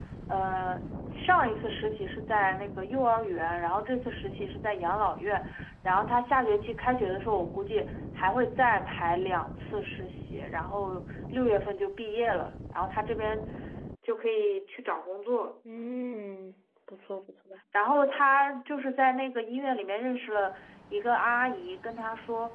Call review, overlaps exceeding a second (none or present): none